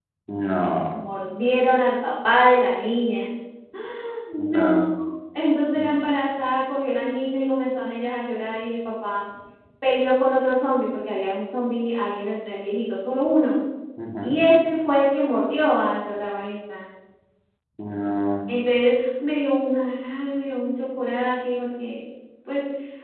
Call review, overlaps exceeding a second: none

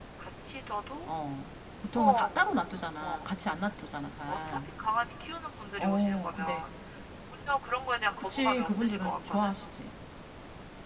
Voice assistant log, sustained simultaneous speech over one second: present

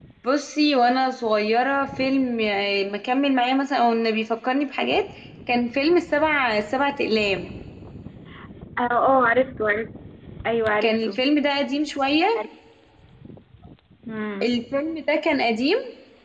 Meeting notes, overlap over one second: none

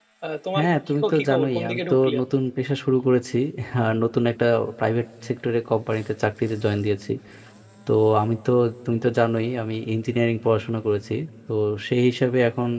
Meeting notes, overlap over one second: present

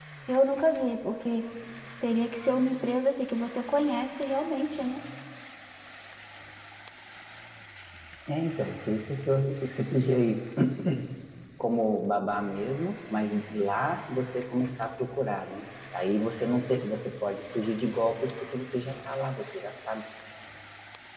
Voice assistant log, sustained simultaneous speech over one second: none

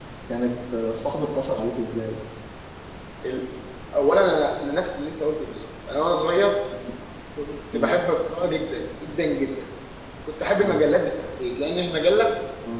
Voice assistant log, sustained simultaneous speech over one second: none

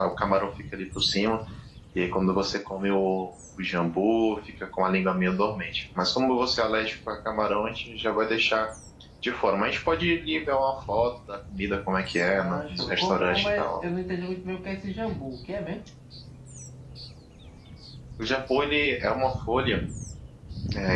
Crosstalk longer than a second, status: present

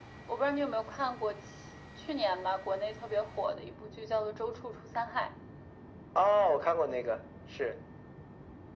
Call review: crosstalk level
none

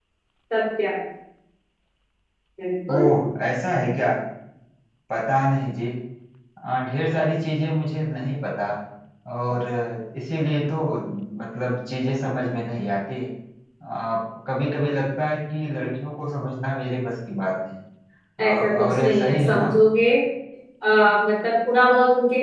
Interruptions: present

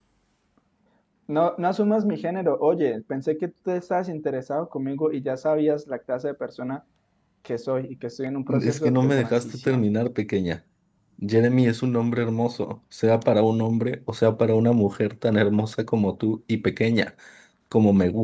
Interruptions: present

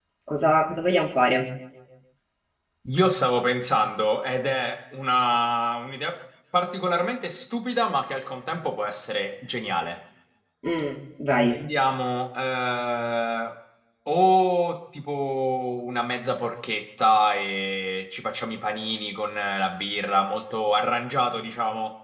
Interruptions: none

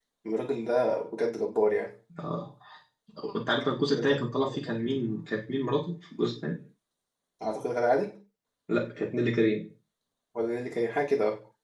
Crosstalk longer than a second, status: none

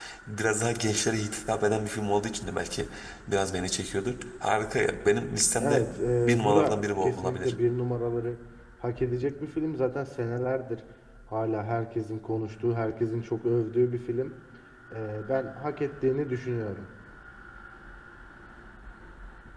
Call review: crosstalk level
present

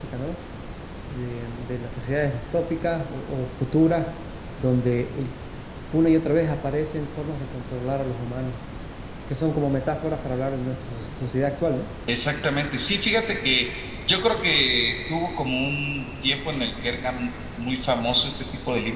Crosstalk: none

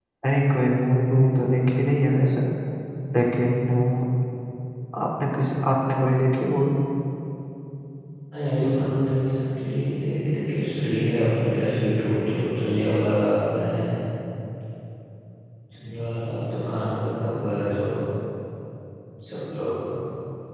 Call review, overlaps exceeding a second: none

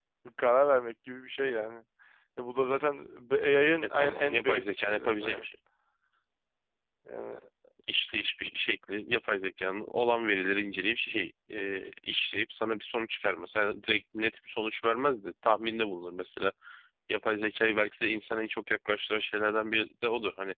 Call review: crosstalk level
present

